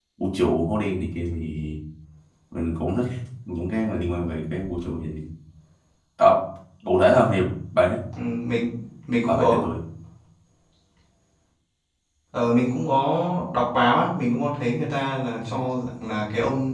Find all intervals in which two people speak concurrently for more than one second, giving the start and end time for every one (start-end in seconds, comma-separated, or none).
none